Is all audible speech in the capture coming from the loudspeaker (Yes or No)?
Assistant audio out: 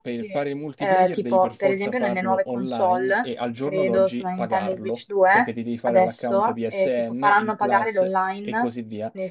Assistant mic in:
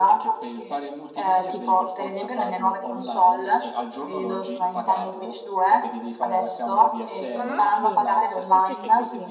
No